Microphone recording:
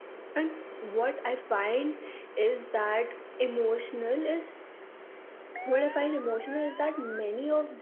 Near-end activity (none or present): none